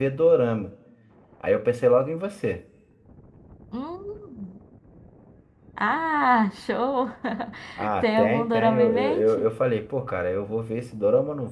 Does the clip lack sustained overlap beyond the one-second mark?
No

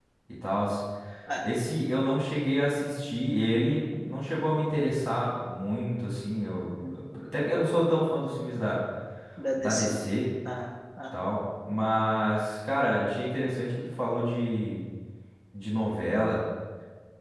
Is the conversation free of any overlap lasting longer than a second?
Yes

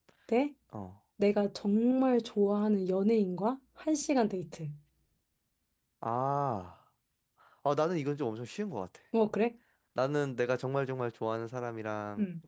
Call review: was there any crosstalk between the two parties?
No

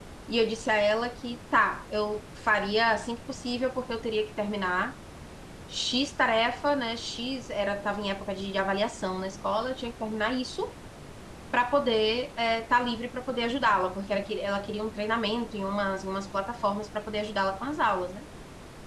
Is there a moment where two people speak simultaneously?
No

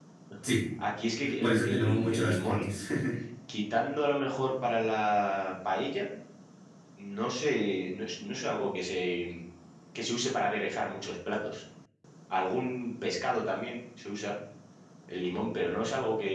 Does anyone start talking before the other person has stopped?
Yes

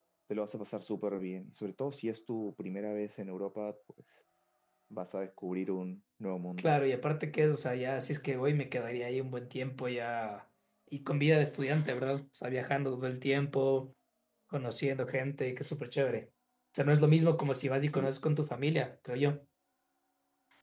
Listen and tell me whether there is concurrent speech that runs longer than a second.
No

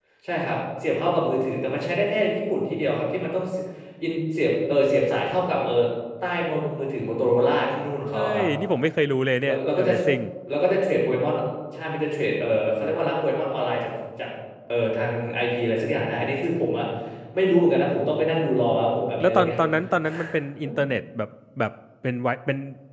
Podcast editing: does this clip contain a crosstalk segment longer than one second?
No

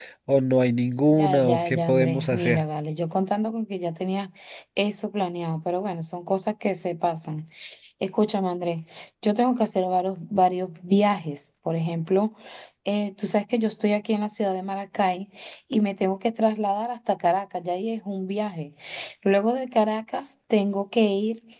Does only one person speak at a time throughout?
No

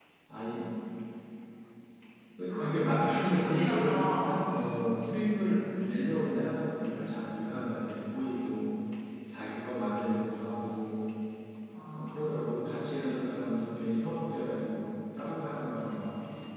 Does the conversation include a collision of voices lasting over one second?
Yes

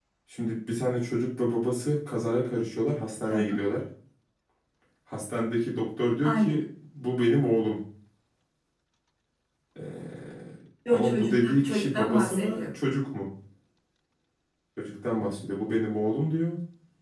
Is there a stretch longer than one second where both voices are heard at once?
Yes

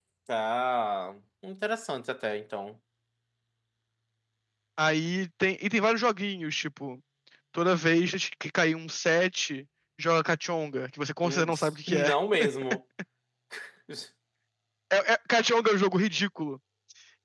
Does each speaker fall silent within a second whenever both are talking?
Yes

